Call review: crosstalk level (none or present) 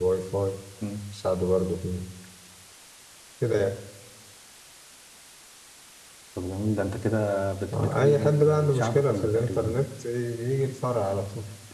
present